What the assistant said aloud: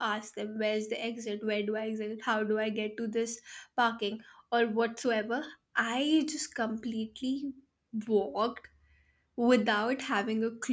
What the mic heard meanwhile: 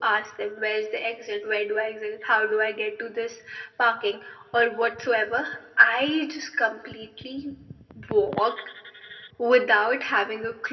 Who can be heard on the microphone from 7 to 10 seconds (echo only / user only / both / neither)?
echo only